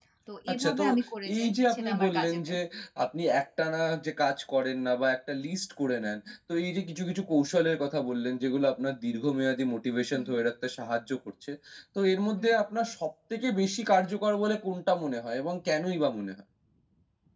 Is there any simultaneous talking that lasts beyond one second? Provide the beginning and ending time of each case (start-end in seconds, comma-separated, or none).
1.4-2.6